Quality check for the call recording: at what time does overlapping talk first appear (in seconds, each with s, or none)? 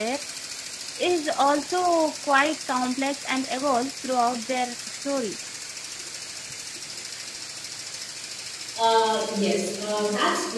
none